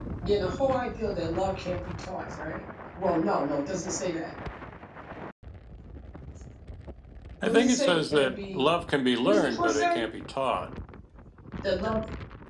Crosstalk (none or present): present